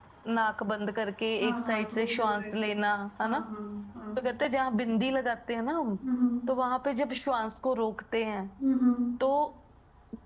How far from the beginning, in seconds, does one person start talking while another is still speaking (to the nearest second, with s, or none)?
1 s